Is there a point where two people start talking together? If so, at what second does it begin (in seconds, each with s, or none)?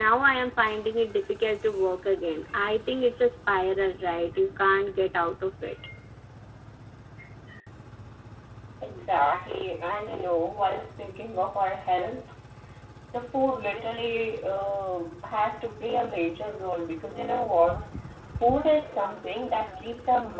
none